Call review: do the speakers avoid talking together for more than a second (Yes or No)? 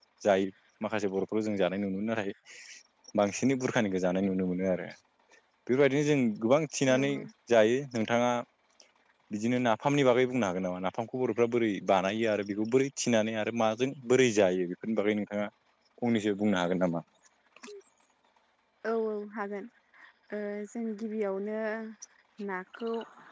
Yes